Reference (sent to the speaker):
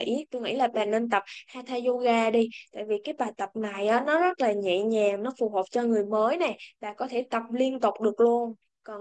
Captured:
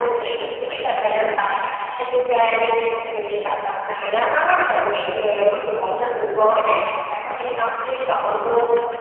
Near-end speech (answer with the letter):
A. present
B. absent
B